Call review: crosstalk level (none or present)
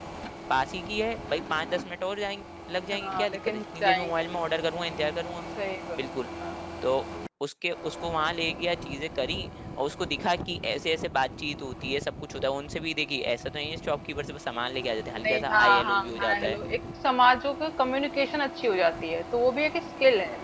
present